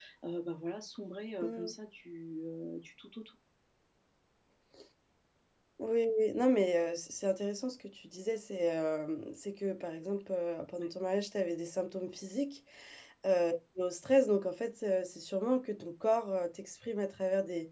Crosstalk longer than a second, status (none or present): none